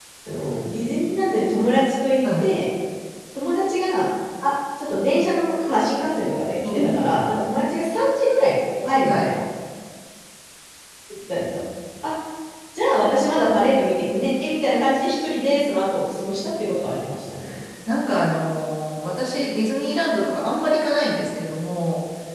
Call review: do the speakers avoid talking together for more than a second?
Yes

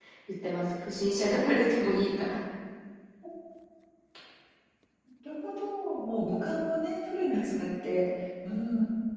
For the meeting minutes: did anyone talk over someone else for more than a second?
No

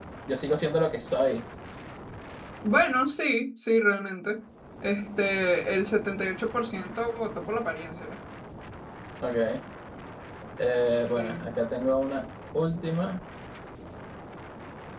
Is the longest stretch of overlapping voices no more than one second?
Yes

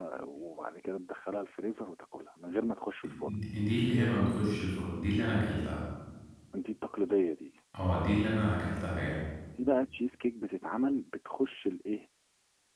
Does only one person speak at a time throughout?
Yes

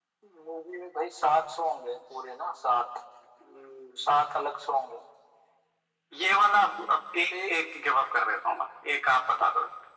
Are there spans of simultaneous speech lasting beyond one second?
No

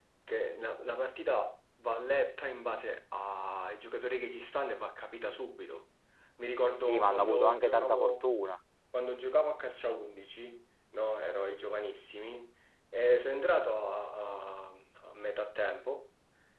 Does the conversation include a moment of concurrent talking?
Yes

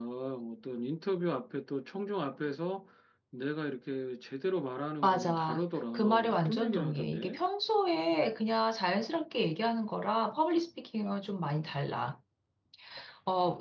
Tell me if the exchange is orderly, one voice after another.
No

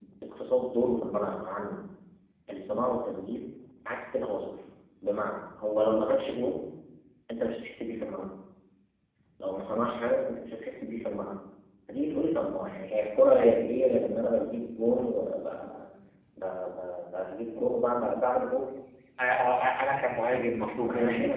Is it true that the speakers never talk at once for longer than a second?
Yes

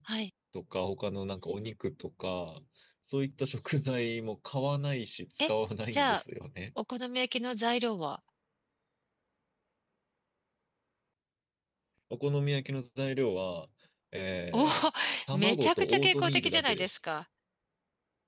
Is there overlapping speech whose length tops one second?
Yes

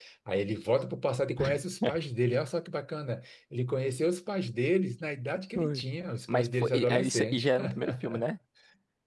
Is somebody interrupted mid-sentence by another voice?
Yes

